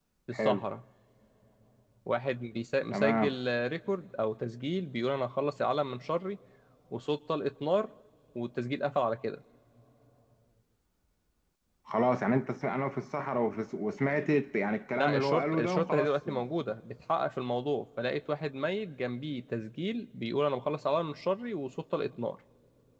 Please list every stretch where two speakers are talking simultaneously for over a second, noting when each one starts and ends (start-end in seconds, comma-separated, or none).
15.0-16.3